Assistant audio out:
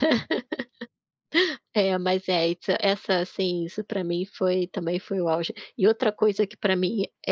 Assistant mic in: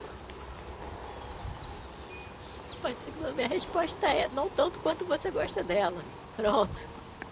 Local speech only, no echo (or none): Pode ser que a minha resposta é: "Não tanto quanto você gosta dela, pronto".